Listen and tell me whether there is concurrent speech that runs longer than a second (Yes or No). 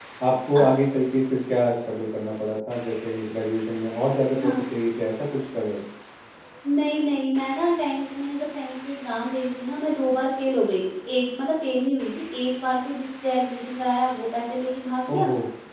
No